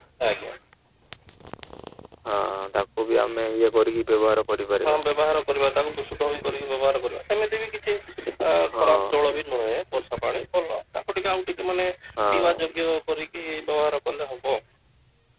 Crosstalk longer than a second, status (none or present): none